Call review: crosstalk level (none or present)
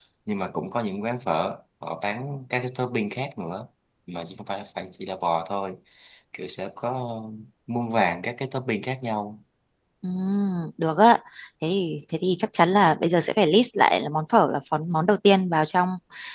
none